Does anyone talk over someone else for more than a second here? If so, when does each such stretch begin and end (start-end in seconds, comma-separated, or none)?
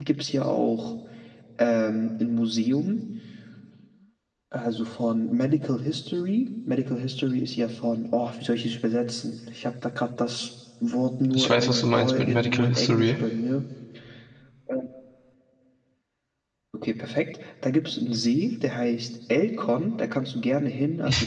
11.3-13.1